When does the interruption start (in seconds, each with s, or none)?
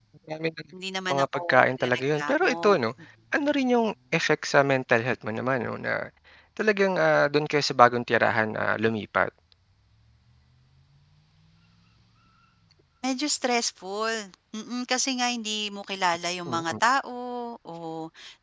1.1 s